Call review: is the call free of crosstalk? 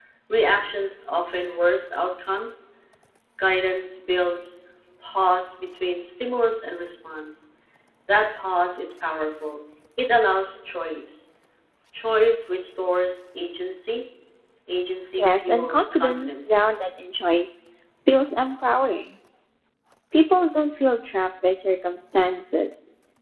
No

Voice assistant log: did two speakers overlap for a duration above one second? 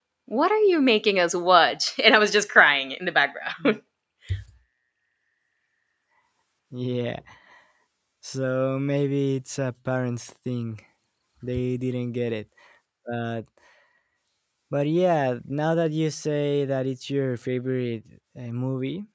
No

